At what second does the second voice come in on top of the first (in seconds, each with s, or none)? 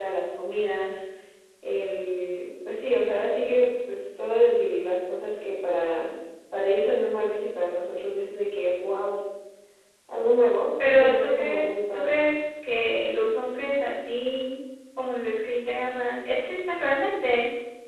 10.8 s